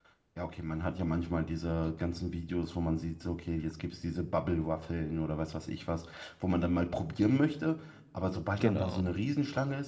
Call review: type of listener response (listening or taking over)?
listening